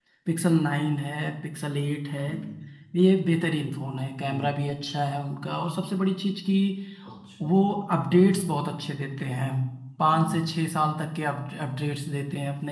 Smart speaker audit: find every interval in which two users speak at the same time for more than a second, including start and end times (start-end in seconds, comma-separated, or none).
none